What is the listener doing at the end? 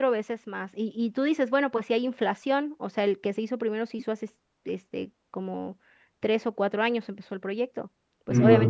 listening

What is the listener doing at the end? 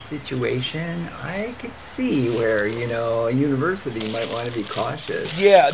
taking over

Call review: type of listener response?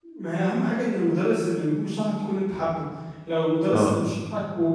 listening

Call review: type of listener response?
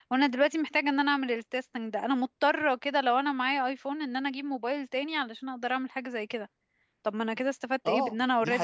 taking over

